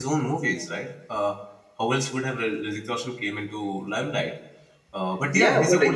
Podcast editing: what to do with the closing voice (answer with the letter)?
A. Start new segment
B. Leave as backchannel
A